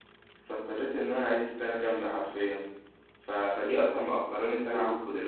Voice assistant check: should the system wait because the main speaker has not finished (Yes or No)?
Yes